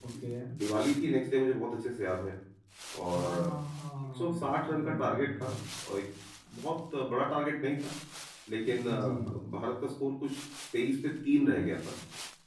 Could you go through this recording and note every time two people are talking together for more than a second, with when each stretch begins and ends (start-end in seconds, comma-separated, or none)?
4.1-5.7